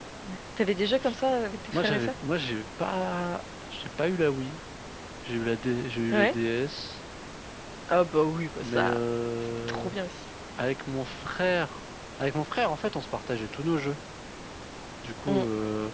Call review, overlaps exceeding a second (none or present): none